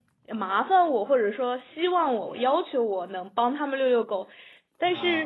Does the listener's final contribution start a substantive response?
No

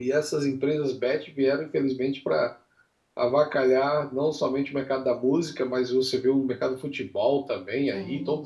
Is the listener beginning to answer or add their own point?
No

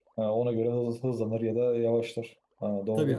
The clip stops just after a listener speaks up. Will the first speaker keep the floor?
No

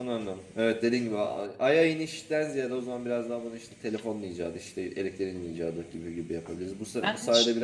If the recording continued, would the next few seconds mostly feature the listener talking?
No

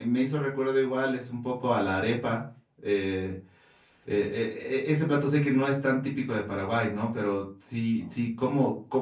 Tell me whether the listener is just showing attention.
Yes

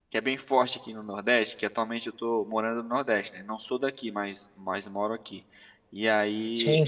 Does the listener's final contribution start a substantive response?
No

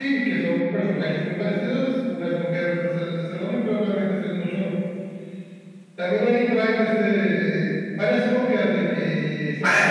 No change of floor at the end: No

